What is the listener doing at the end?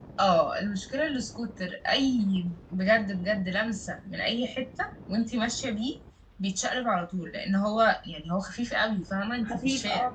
taking over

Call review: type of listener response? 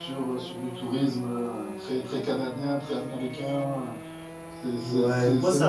taking over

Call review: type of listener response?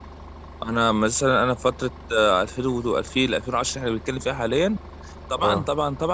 listening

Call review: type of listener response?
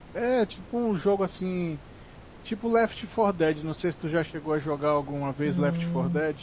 taking over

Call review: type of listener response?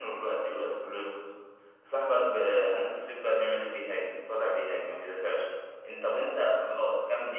listening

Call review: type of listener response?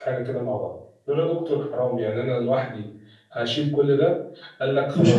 listening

